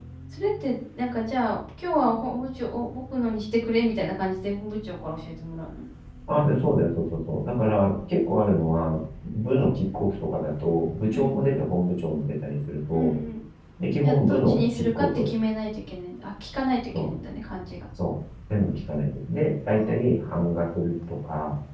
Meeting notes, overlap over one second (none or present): present